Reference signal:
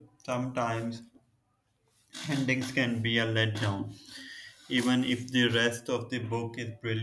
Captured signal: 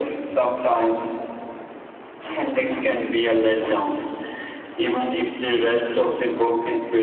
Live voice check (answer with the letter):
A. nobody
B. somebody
A